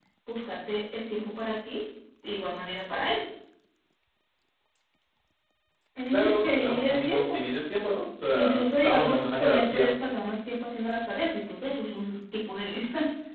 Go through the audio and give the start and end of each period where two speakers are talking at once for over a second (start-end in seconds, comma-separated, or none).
6.1-7.4, 8.3-9.9